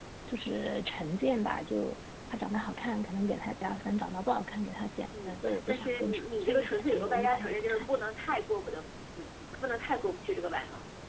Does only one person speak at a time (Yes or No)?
No